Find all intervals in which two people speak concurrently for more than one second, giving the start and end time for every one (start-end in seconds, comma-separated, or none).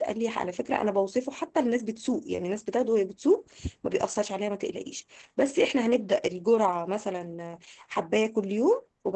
none